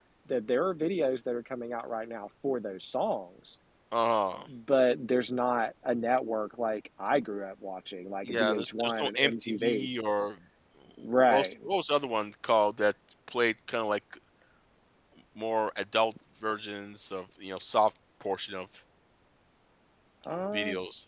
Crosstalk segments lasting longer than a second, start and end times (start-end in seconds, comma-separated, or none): 8.2-9.9